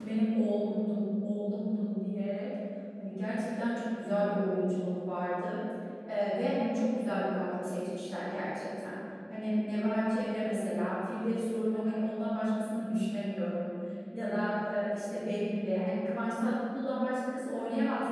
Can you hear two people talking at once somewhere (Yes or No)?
No